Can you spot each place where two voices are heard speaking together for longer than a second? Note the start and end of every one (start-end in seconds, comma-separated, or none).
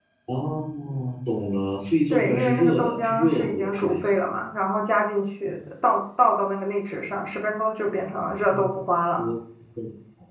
2.1-4.1